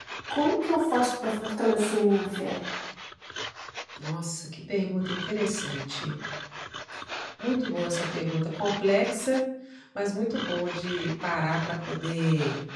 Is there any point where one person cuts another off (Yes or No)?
No